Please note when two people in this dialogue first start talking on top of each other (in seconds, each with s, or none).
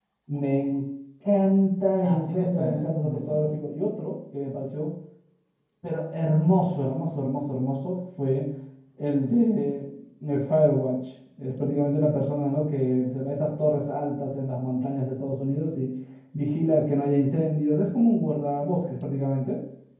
2.0 s